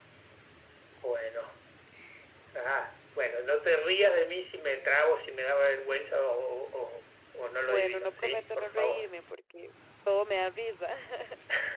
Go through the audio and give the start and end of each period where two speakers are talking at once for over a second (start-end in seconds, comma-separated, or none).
7.6-9.1